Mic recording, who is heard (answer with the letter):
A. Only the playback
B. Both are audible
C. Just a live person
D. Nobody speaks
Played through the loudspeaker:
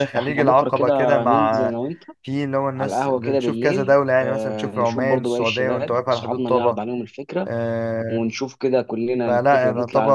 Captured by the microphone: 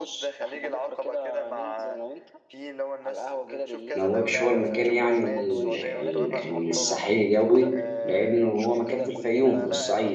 B